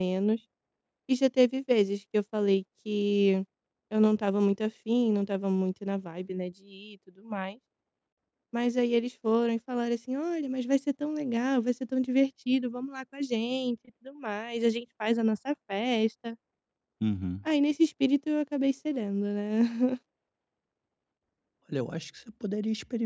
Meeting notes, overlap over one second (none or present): none